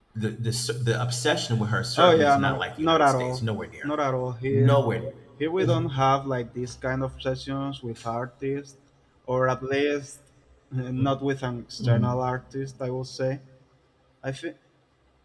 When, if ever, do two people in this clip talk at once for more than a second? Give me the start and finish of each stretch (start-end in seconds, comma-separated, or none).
2.0-3.5